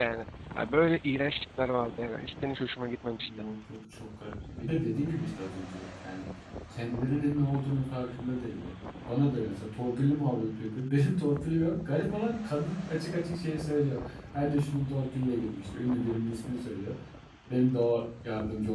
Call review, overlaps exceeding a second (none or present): none